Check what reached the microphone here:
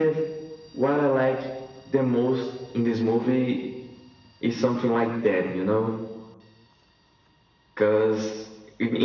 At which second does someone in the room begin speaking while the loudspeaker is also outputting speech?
none

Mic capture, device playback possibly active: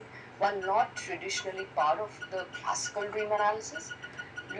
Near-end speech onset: none

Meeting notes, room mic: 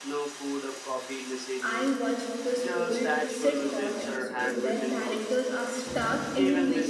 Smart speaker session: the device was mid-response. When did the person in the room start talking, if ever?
2 s

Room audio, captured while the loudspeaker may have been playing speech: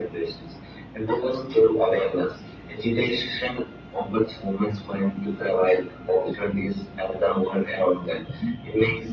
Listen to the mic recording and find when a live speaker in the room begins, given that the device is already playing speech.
none

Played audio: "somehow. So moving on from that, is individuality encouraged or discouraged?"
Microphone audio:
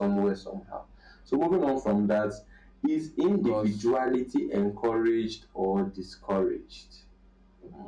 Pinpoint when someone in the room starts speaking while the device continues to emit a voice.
3 s

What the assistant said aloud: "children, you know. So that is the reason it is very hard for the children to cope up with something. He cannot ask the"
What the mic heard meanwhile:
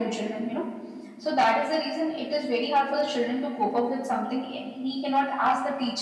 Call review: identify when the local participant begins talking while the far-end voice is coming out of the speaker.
none

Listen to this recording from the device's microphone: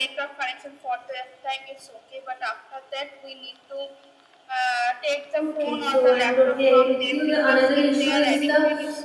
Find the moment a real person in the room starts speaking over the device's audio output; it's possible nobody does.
5 s

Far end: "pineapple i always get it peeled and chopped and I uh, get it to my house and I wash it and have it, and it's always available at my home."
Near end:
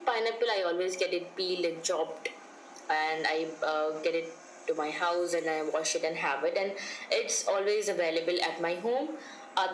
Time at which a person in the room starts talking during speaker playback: none

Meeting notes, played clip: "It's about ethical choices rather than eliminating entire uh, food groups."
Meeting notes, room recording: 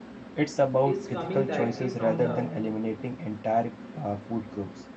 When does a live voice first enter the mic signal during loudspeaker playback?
1 s

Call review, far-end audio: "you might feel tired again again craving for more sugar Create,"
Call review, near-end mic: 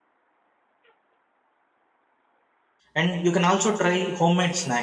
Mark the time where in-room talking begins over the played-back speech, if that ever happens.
3 s

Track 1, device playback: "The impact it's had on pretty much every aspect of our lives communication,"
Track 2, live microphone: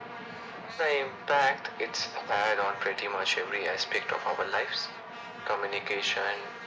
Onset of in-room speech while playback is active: none

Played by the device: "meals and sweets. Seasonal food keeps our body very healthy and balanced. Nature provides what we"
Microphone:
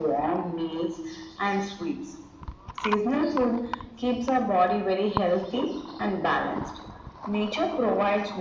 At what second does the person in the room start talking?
none

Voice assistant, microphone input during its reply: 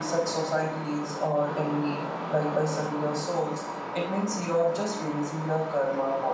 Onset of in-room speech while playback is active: none

